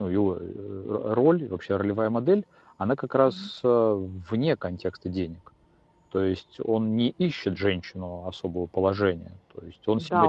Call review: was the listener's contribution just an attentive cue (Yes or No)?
No